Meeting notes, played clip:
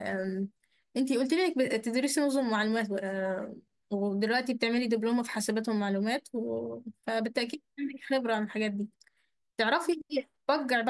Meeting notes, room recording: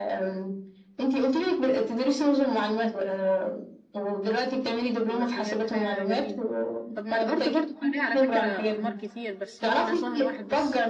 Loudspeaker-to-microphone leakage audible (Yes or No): Yes